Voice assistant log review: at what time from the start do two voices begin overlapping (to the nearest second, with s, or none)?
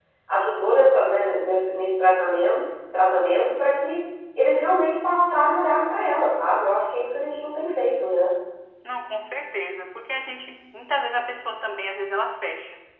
none